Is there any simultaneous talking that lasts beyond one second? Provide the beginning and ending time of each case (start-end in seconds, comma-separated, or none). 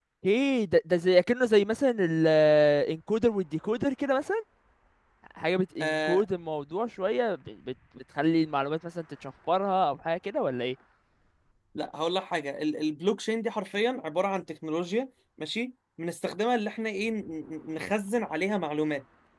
none